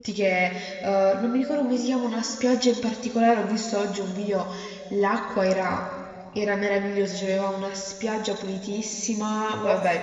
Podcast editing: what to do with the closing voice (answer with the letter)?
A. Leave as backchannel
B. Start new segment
A